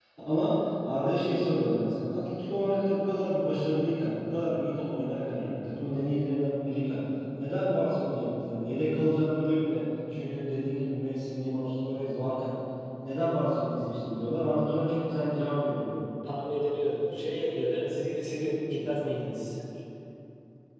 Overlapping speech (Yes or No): No